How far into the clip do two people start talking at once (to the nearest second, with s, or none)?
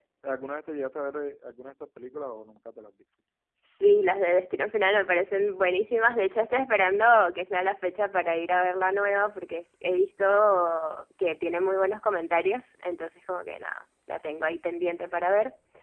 none